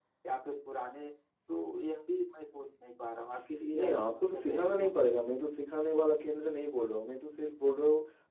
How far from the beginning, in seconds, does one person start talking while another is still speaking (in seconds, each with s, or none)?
3.7 s